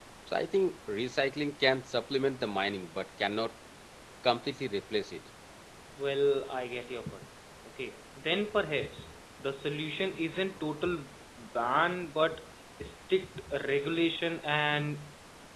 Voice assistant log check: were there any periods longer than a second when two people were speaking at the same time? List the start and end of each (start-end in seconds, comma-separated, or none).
none